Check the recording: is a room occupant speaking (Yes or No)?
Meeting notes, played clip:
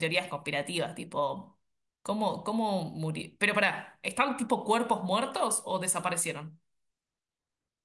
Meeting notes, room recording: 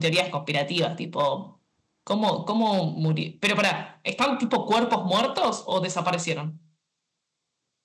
No